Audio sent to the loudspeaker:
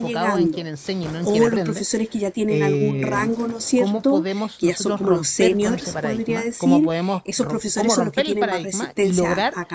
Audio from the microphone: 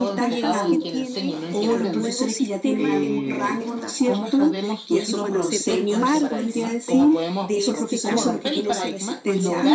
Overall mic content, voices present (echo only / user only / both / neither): both